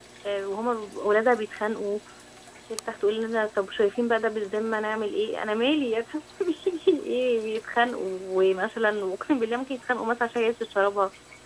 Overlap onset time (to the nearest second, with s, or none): none